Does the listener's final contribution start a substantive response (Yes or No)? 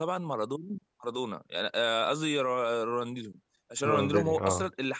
No